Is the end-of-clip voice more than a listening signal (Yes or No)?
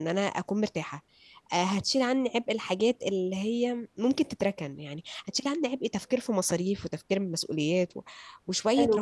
Yes